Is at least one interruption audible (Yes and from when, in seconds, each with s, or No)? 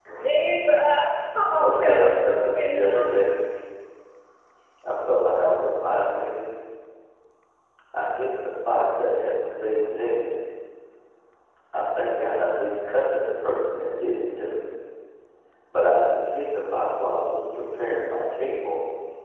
Yes, from 1.6 s